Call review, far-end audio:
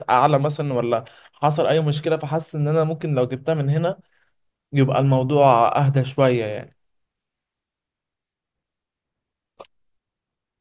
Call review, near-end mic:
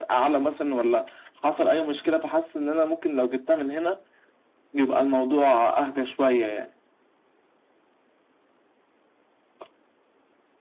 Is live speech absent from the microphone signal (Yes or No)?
Yes